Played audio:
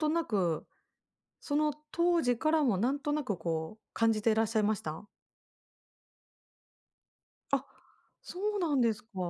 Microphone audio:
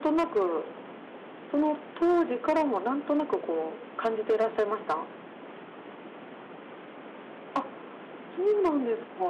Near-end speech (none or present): none